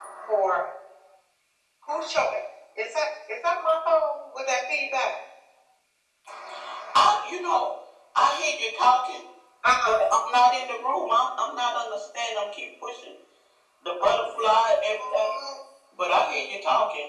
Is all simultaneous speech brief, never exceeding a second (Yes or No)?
No